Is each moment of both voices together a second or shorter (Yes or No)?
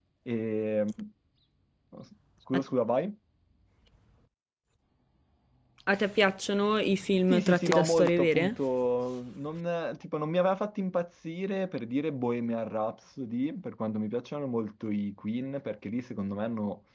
No